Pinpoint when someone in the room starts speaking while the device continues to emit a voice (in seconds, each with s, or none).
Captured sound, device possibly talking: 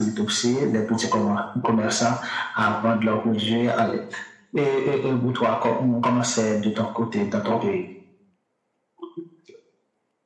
none